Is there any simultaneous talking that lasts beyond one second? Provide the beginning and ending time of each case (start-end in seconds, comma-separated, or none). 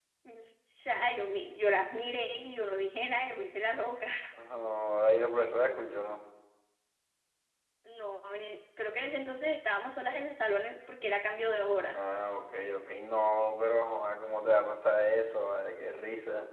none